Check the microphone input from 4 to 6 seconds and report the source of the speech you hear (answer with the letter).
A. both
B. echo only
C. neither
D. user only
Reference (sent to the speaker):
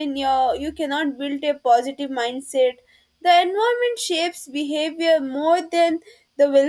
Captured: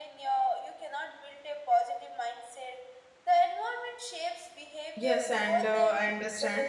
A